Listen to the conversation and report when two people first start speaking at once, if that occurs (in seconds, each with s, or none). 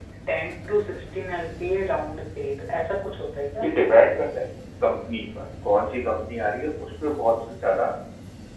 none